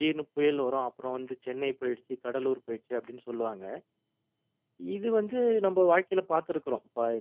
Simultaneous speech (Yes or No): No